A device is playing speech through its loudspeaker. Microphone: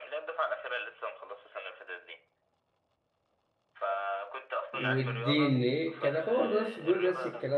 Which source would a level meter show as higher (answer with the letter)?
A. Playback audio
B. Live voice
B